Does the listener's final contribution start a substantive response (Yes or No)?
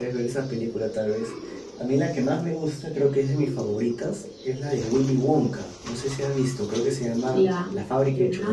Yes